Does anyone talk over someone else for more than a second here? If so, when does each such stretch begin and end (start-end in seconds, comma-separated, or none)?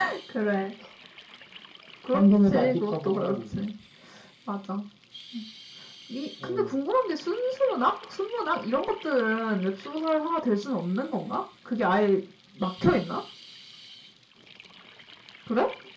2.1-3.4